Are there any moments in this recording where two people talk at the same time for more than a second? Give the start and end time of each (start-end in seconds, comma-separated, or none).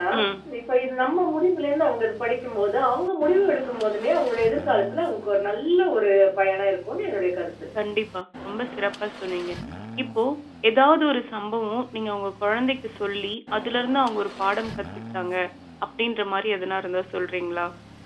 none